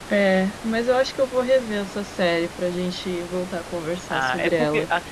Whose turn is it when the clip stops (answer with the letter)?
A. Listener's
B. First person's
A